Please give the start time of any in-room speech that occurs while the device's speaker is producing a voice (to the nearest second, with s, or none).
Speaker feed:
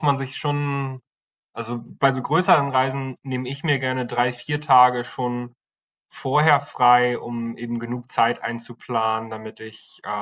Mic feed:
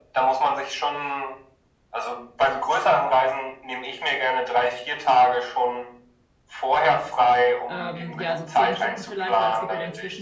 8 s